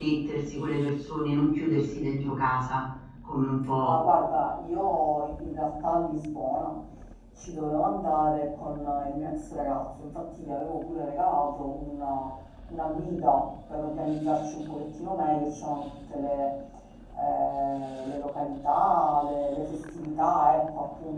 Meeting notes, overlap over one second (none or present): none